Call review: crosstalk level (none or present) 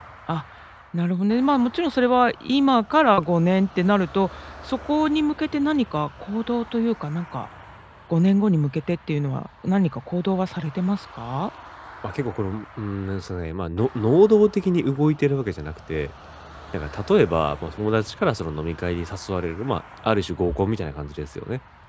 none